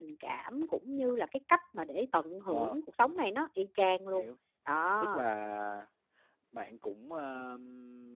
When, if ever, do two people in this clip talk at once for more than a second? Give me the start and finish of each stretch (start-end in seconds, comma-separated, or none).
none